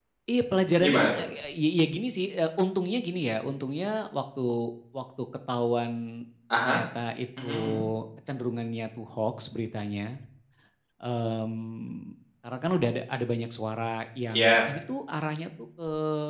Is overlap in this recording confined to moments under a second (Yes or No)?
Yes